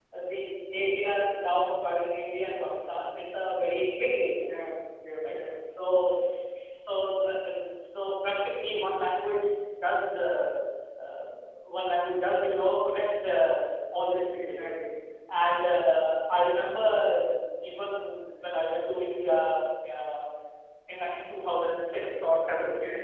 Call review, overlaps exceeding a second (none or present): none